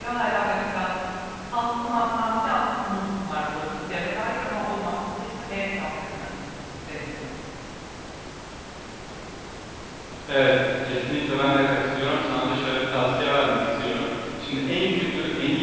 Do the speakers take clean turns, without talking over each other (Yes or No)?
Yes